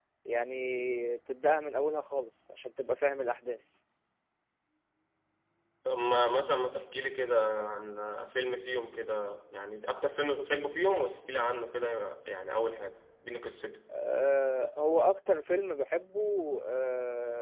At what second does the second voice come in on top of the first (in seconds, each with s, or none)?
none